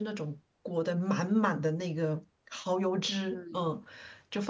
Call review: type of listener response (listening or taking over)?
listening